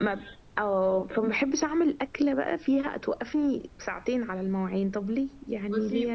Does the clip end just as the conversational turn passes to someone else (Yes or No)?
Yes